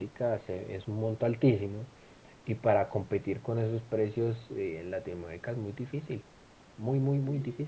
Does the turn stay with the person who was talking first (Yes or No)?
No